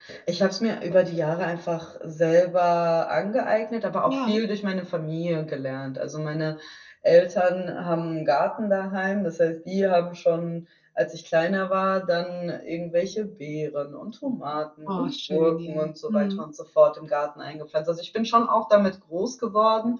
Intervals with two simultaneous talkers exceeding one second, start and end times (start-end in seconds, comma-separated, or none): 14.9-16.4